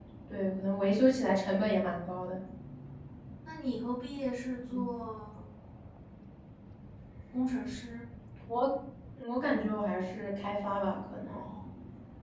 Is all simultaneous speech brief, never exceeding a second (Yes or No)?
Yes